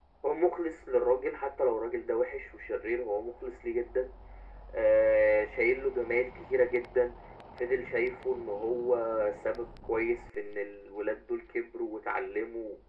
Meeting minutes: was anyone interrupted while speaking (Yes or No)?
No